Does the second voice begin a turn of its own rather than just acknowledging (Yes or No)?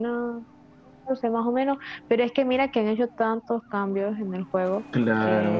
No